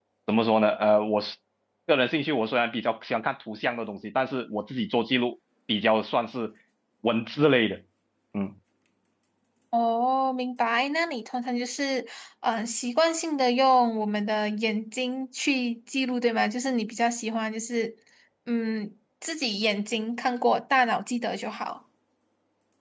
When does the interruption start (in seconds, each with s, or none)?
none